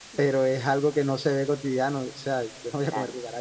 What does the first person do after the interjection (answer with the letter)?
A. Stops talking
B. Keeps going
B